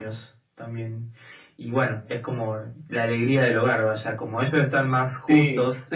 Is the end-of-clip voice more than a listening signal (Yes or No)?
No